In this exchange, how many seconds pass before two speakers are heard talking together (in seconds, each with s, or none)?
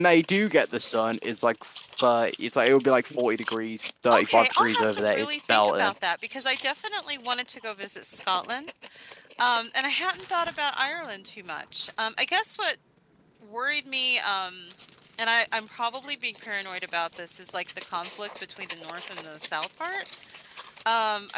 4.1 s